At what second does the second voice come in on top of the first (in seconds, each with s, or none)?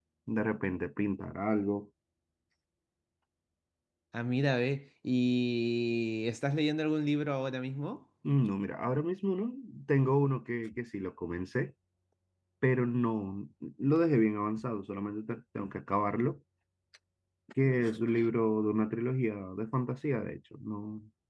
none